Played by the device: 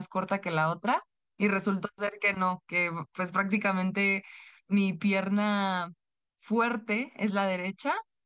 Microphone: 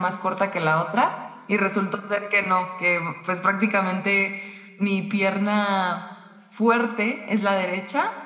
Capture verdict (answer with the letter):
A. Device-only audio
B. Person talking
A